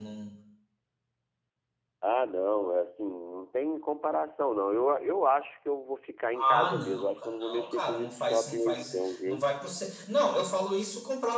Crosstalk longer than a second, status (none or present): present